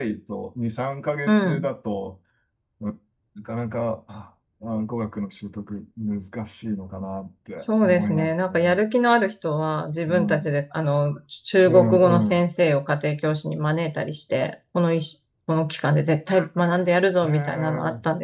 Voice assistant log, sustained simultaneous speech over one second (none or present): present